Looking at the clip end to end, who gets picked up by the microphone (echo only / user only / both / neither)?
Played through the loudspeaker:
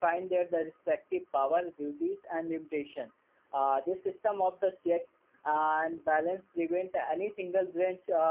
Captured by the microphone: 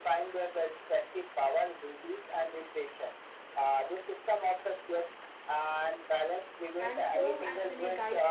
both